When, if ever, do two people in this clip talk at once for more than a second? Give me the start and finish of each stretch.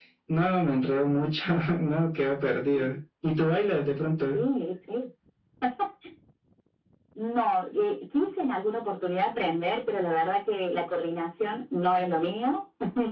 none

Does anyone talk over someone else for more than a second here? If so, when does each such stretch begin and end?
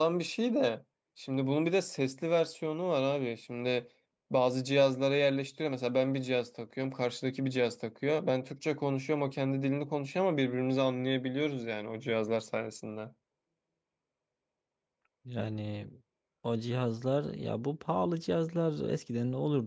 none

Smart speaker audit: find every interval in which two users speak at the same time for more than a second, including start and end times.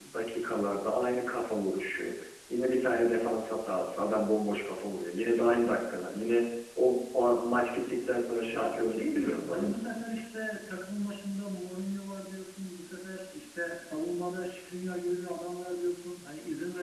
8.5-9.7

